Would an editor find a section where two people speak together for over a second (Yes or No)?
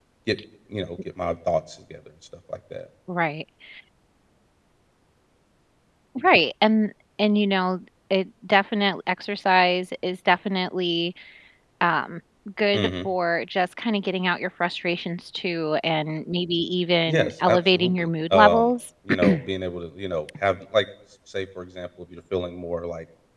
Yes